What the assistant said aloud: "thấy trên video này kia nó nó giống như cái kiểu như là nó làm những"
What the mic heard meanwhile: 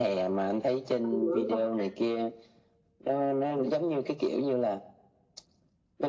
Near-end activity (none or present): present